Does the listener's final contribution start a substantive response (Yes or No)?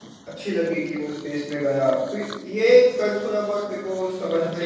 Yes